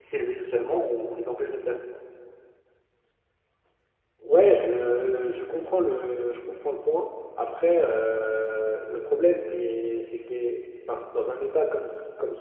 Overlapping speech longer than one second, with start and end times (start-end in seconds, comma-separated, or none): none